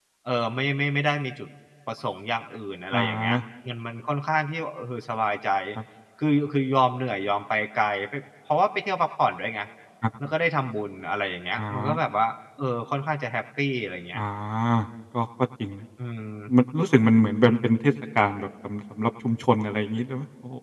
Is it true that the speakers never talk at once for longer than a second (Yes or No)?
Yes